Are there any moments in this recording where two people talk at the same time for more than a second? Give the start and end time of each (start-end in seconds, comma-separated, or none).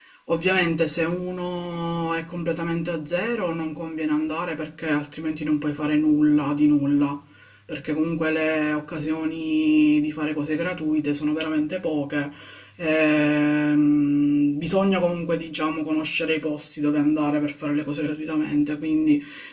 none